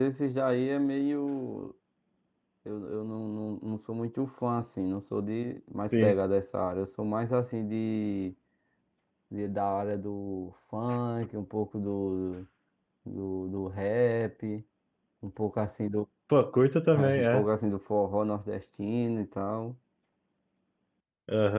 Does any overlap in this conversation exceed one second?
No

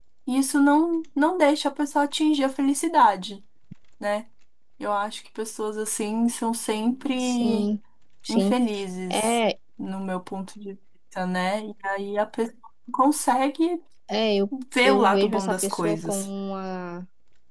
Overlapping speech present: Yes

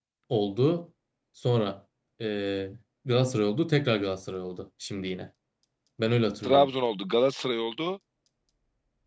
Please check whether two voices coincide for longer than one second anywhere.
No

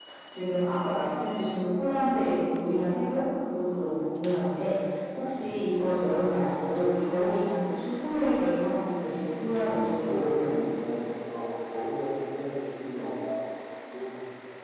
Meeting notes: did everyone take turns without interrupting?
No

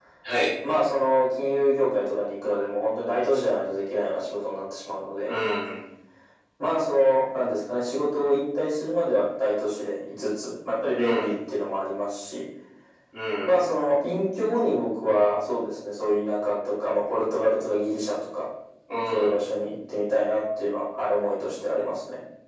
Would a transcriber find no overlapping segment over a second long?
Yes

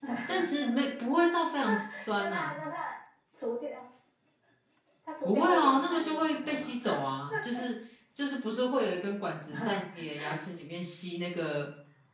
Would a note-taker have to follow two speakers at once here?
Yes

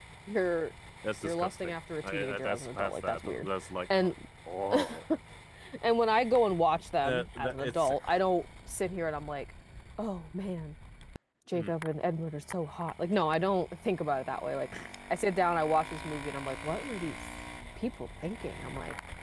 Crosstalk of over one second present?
Yes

